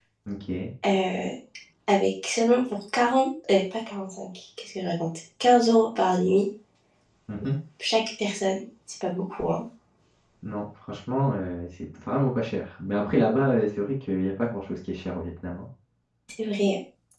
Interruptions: none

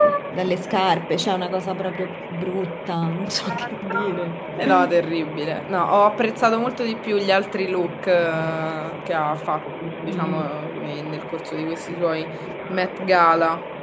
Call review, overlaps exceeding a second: none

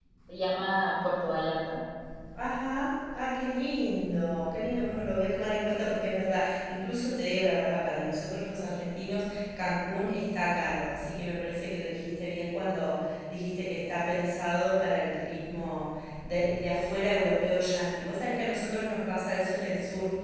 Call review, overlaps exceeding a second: none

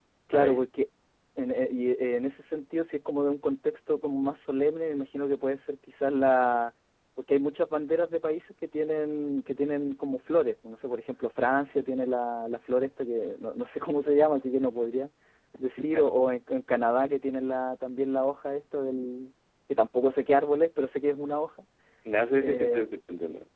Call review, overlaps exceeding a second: none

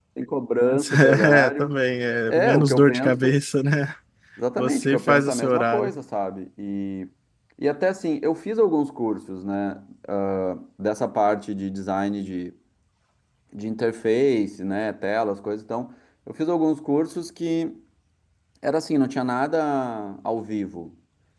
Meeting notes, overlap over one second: present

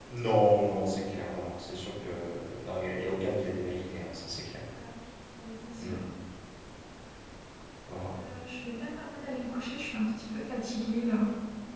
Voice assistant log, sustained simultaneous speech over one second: none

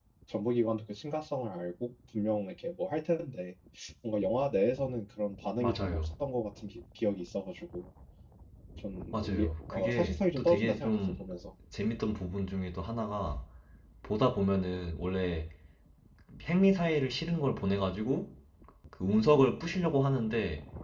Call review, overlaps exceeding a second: present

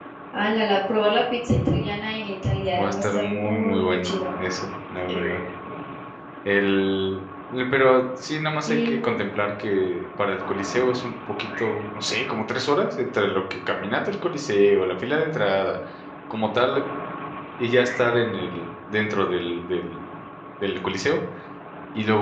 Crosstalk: present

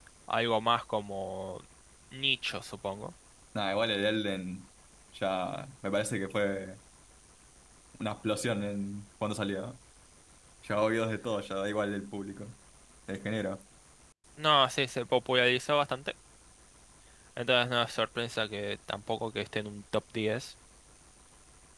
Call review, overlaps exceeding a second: none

